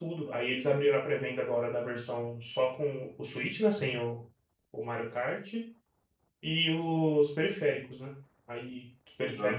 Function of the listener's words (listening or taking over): listening